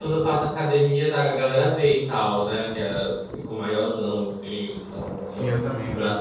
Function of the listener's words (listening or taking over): taking over